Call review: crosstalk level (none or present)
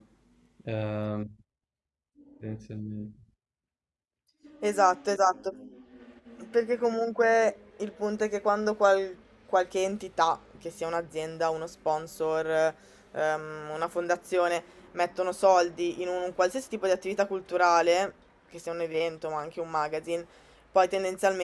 none